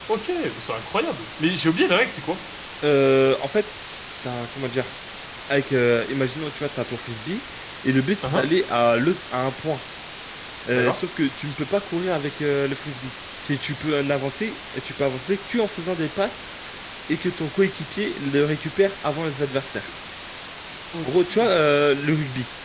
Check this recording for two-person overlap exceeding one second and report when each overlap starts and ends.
none

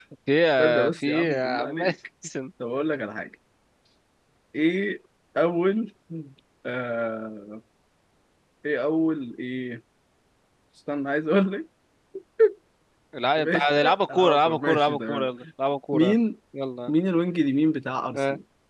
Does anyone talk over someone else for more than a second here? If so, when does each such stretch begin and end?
0.6-1.8, 13.4-15.3

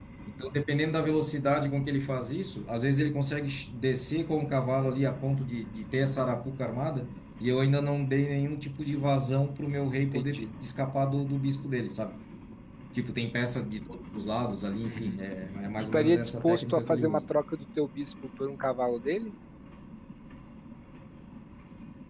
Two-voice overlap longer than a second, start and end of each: 15.8-17.2

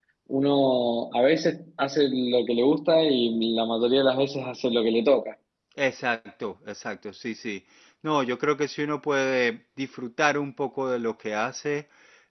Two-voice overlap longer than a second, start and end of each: none

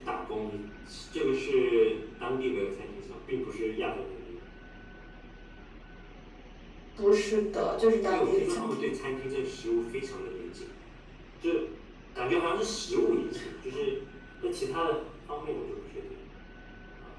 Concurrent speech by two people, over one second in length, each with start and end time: 7.5-8.9

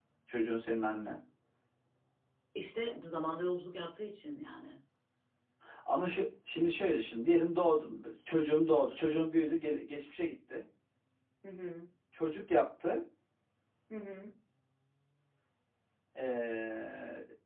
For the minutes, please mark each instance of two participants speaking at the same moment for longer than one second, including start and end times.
none

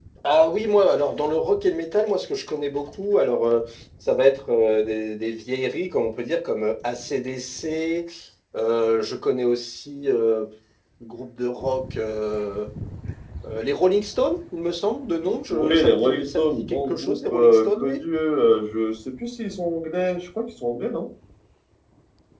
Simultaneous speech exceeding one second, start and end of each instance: 15.5-18.0

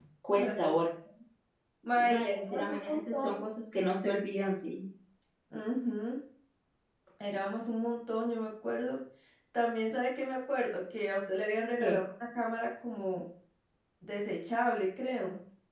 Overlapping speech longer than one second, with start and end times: 2.0-3.4

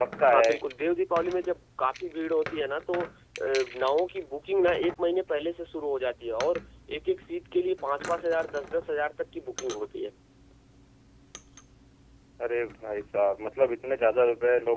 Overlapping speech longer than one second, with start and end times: none

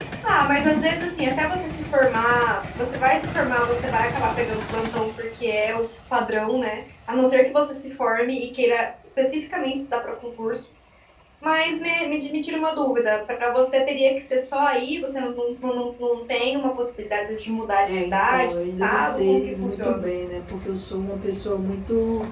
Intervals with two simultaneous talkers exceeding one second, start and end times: 17.8-20.0

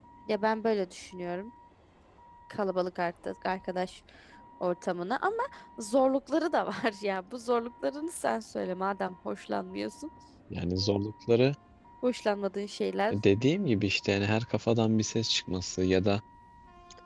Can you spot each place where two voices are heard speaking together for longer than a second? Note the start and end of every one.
none

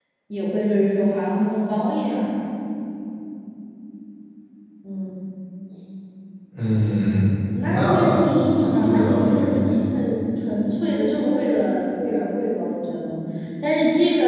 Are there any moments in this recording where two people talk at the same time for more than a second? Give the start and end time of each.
8.6-9.8

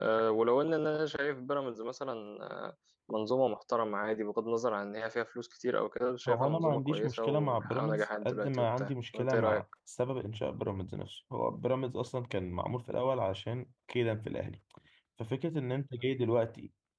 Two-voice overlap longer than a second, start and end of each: 6.3-9.6

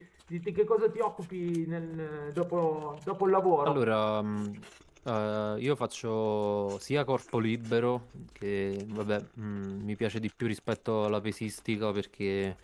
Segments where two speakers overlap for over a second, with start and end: none

